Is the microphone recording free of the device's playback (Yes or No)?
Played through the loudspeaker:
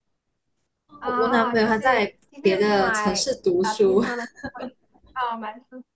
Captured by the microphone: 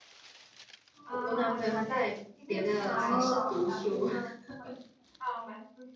No